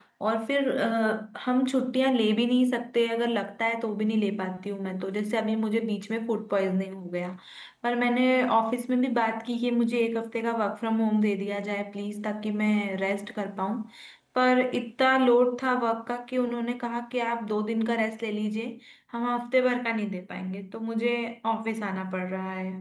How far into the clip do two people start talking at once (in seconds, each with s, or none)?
none